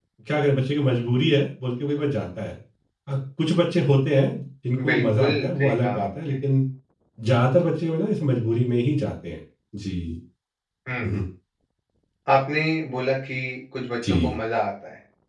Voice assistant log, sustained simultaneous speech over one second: present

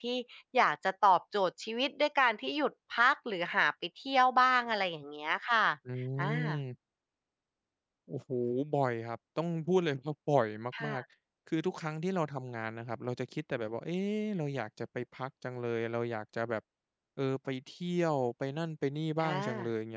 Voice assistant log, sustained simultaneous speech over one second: none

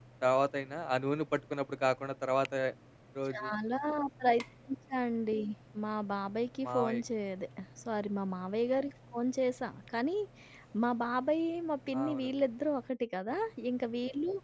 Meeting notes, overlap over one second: none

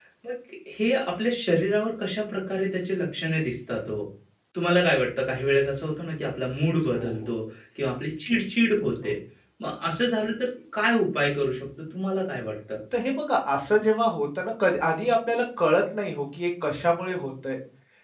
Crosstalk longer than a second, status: none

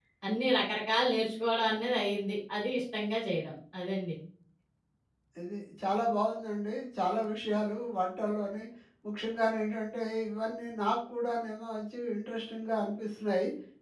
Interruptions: none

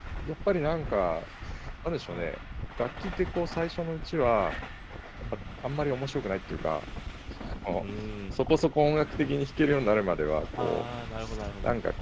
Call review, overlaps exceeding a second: none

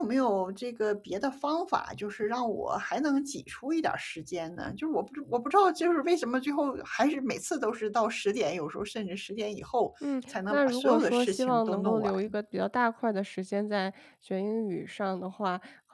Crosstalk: present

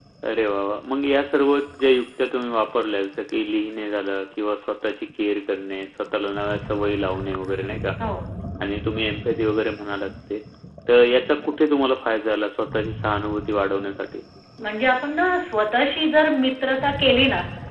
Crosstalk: none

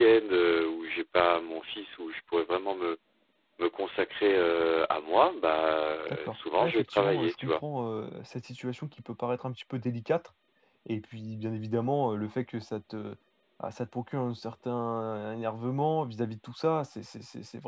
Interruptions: present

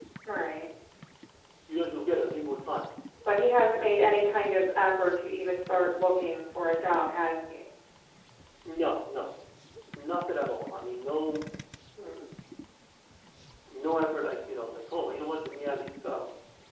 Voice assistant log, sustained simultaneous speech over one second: none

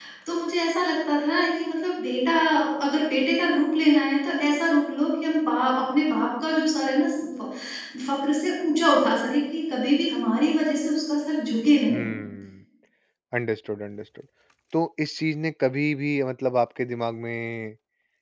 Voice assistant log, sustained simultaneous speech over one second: none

